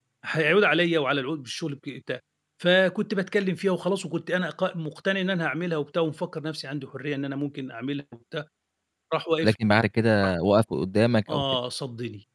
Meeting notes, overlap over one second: none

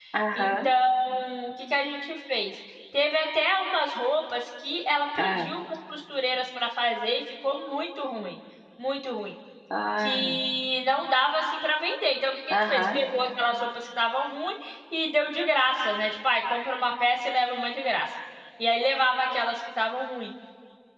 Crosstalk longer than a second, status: none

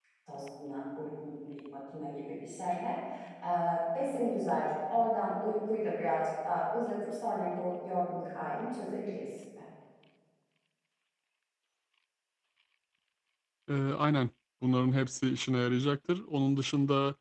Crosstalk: none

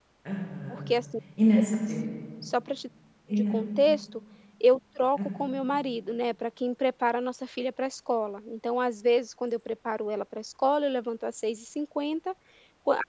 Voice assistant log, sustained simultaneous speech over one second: none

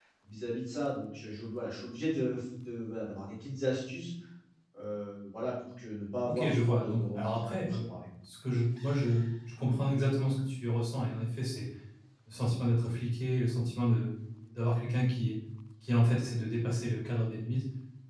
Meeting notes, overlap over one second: present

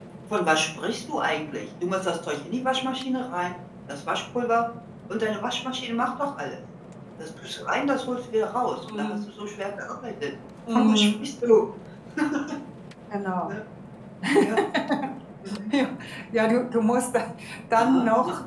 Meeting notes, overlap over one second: none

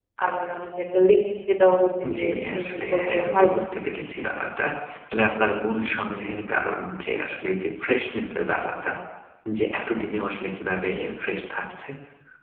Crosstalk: present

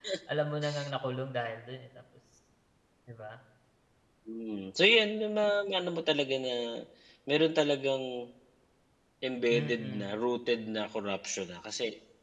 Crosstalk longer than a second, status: none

